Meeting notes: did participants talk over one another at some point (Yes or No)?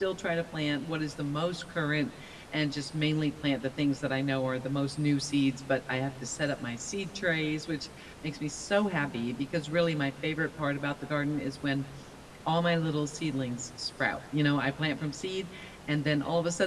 No